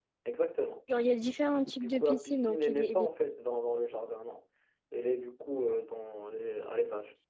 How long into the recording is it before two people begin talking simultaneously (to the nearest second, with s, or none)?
2 s